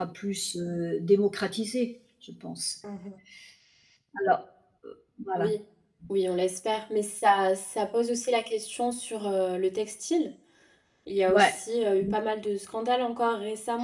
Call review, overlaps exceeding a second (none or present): none